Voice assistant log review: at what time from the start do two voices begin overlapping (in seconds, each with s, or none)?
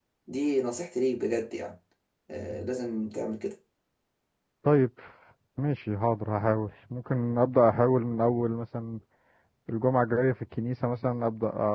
none